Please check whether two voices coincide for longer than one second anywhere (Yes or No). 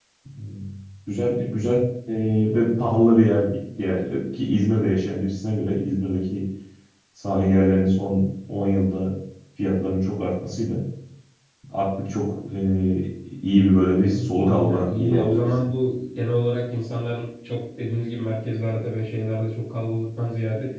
Yes